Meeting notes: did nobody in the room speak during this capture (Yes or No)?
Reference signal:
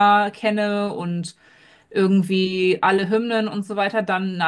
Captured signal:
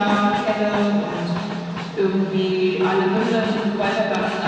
Yes